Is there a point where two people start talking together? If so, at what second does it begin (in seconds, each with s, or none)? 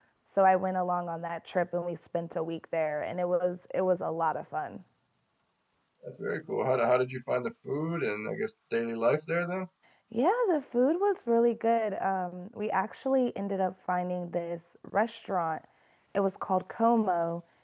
none